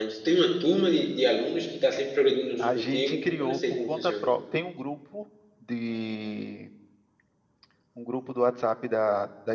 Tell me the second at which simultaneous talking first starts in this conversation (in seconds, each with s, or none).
2.6 s